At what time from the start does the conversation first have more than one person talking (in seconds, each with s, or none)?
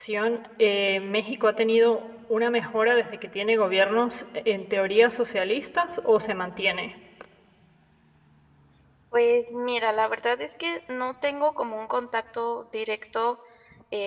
none